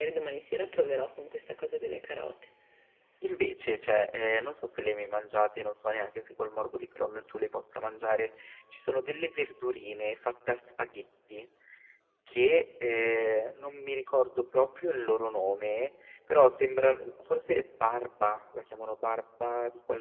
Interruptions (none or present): none